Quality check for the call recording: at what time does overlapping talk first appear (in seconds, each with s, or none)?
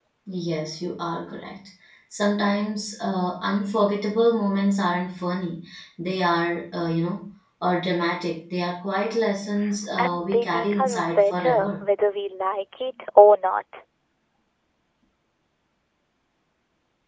10.0 s